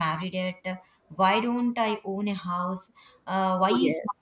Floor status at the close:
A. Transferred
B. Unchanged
B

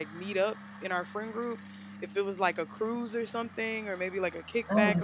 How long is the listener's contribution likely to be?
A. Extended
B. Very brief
B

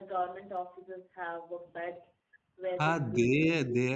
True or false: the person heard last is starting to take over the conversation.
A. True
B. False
A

